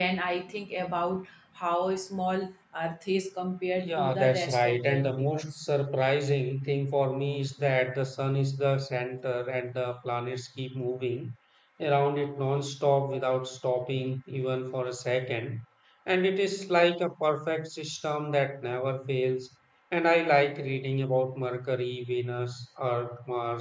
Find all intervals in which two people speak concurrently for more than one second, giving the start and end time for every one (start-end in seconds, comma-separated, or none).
3.8-5.6